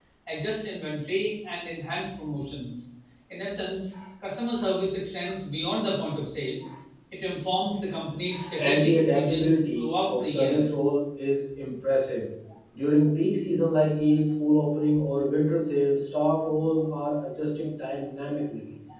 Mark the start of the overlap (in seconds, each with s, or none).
8.6 s